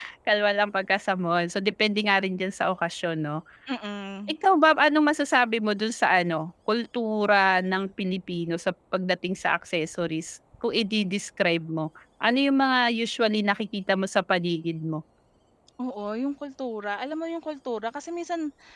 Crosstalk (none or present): none